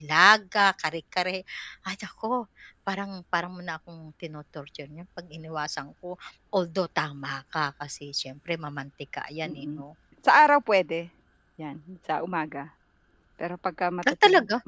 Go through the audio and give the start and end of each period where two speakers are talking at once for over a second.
none

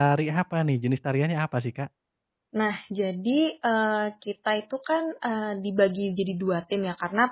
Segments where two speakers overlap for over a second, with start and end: none

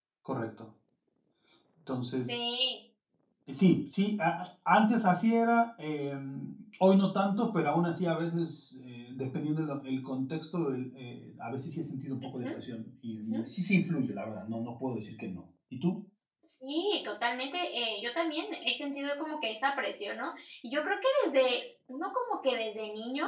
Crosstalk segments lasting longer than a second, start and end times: none

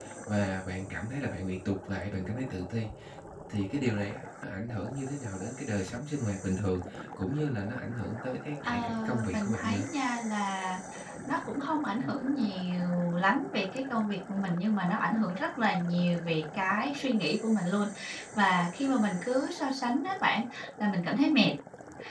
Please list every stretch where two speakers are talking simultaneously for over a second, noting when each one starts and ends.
8.7-9.9

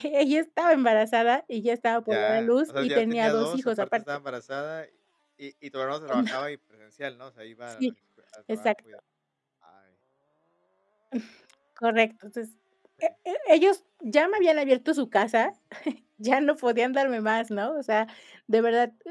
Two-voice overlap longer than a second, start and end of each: 2.1-4.0

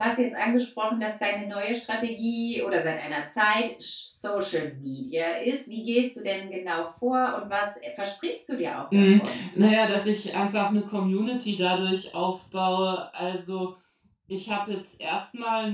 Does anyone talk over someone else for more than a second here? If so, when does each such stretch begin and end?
none

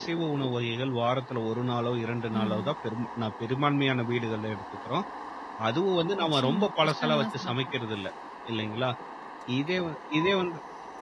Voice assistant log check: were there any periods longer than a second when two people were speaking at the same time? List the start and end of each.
6.2-7.5

